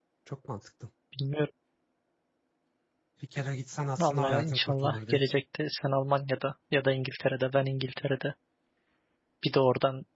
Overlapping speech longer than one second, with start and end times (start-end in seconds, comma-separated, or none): 4.0-5.3